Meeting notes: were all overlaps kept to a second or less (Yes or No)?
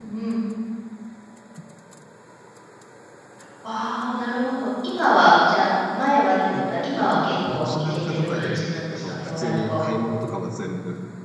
No